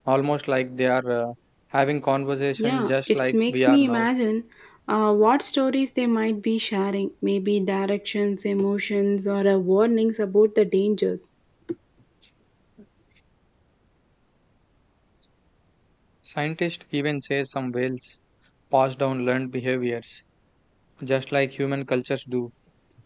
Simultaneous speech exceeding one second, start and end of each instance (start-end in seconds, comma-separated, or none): 2.6-4.1